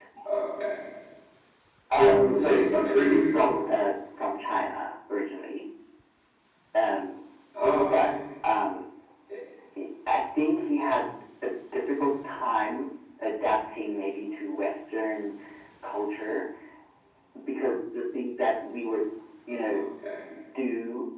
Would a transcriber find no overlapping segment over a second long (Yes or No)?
No